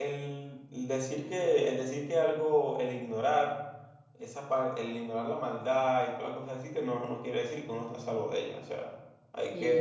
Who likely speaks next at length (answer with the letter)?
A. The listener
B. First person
A